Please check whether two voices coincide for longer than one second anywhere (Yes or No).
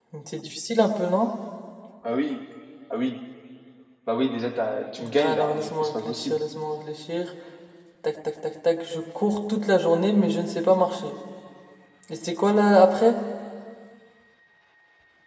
Yes